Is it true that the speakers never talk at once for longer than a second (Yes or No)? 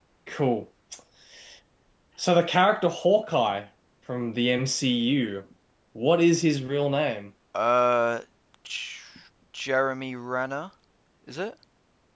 Yes